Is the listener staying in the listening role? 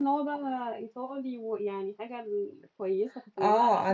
No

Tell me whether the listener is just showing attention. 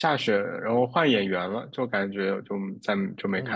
No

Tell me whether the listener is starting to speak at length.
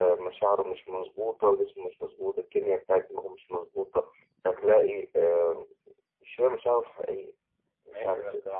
Yes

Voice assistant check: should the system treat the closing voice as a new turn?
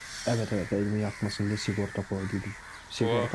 No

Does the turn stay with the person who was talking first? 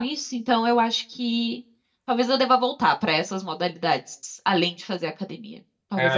No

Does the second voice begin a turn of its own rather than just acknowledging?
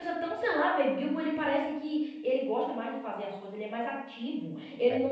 No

